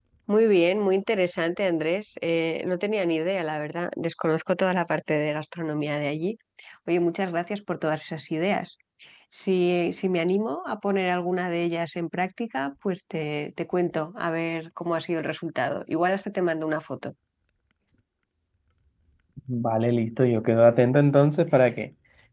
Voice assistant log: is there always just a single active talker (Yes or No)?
Yes